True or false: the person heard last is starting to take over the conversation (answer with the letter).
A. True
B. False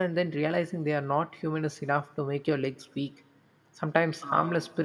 B